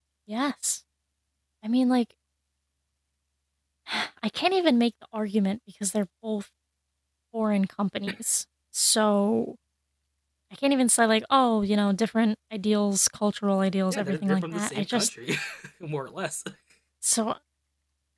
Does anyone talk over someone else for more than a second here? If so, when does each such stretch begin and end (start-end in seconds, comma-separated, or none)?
13.9-15.1